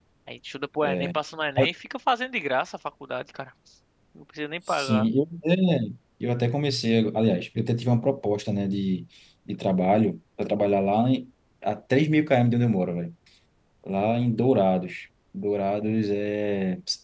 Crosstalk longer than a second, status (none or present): none